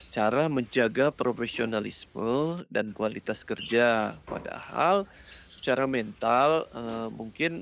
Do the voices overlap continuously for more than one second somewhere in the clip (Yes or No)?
No